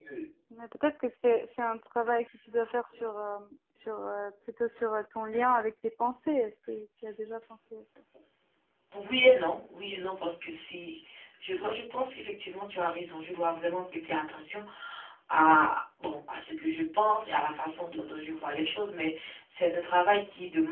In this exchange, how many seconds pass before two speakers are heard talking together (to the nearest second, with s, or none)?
none